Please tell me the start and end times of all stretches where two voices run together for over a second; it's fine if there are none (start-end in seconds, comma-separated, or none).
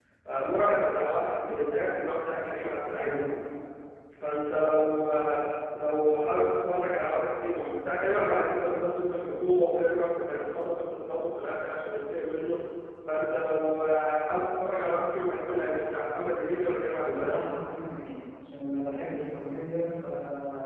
none